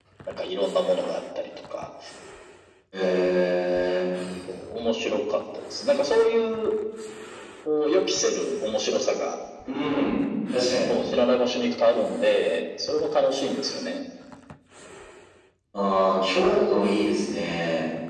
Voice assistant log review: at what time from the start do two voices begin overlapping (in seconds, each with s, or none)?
none